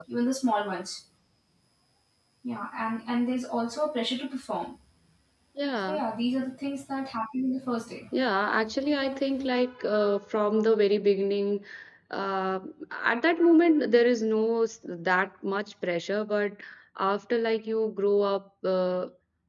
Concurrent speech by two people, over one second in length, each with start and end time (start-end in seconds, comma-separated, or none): none